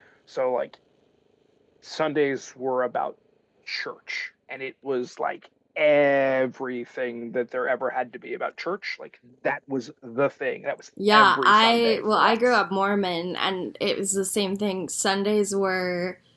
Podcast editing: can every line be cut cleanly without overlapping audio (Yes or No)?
No